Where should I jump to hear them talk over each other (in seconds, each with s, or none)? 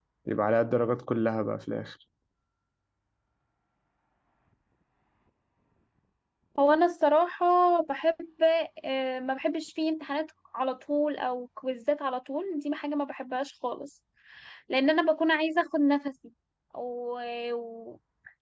none